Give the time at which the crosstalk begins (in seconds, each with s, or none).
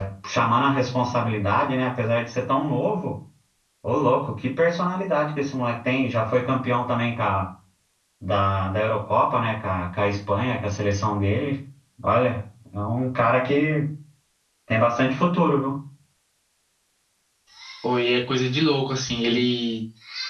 none